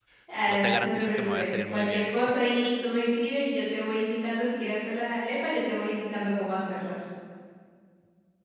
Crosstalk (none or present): present